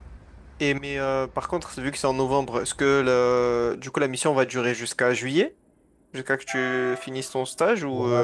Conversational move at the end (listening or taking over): taking over